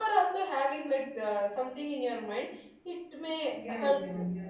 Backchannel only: No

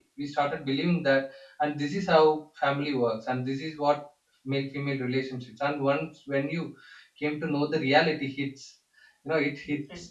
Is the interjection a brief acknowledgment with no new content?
Yes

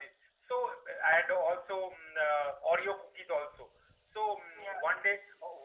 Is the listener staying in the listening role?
Yes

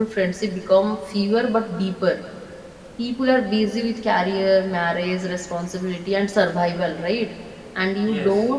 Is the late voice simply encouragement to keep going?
Yes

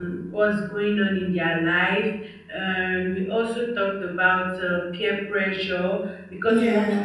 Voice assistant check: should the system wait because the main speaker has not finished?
Yes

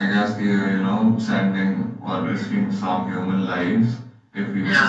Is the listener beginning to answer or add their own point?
No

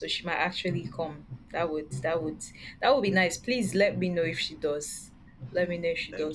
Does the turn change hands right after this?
No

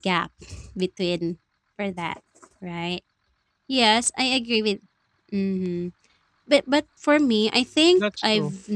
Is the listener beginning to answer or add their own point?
No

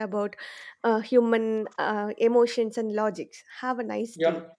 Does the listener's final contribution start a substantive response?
Yes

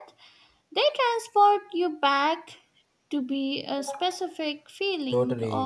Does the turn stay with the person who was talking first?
No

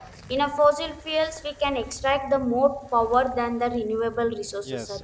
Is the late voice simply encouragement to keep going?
No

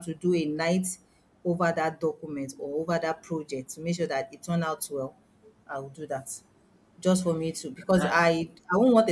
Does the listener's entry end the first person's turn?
No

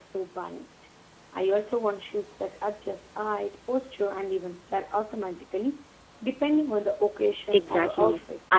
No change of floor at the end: No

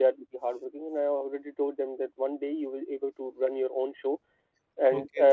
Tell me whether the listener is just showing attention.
Yes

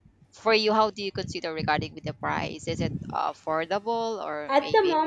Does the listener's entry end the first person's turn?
Yes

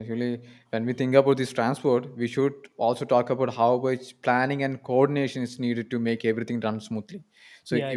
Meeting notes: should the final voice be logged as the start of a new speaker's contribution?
No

